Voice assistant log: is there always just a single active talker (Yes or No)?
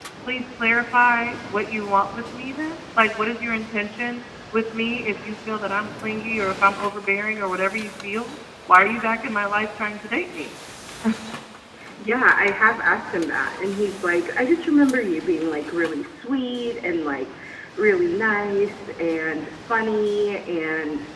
Yes